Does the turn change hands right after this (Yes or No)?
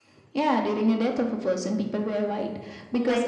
No